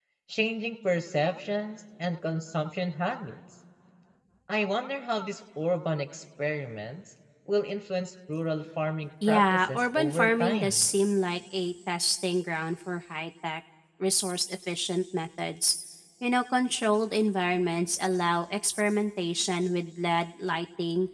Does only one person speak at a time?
No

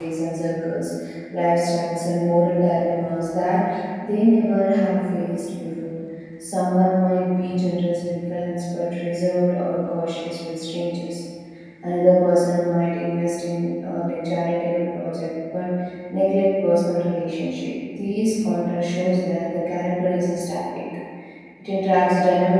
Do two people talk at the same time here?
No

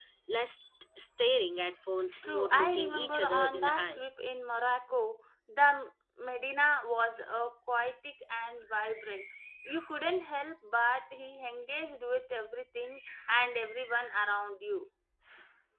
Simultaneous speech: Yes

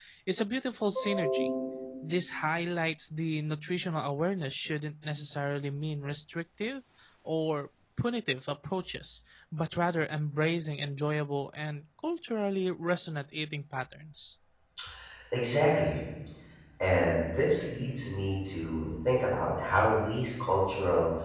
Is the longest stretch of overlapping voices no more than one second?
Yes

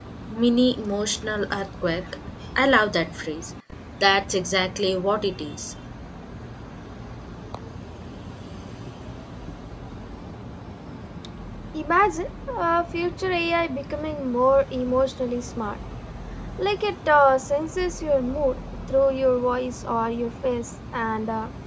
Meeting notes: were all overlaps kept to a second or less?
Yes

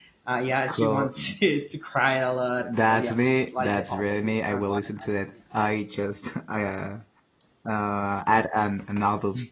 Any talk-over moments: Yes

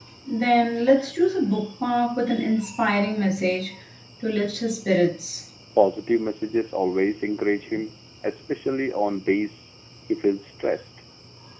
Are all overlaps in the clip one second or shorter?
Yes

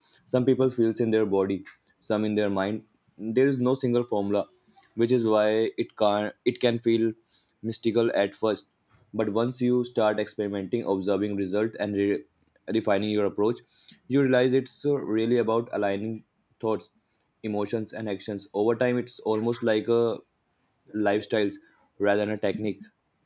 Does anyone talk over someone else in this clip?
No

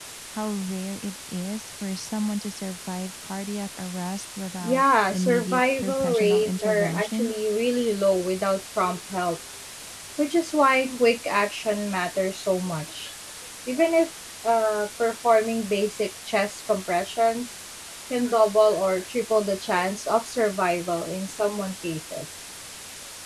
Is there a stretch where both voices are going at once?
Yes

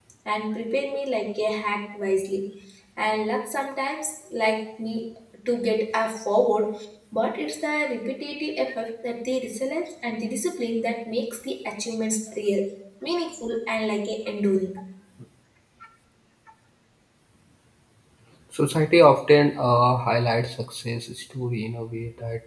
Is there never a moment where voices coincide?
Yes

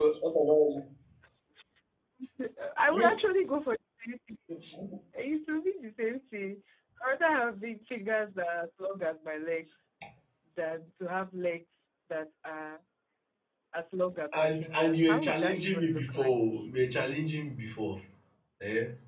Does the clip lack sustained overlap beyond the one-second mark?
No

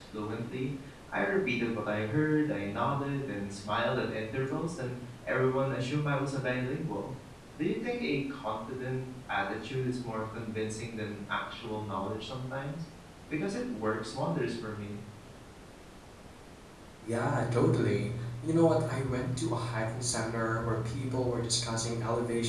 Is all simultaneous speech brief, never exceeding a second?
Yes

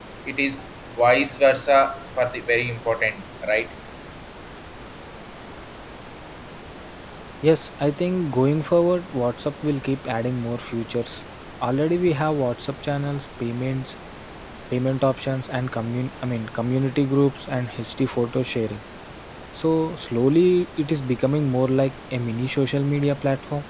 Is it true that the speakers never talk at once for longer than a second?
Yes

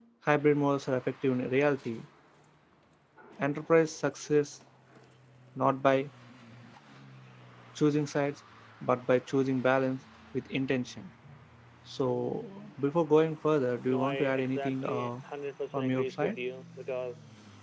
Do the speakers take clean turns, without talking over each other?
No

